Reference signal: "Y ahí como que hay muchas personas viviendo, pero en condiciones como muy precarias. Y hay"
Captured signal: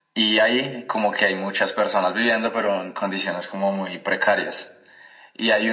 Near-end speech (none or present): none